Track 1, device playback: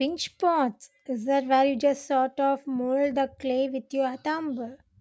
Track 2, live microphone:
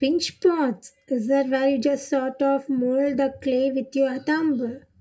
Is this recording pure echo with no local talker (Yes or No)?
Yes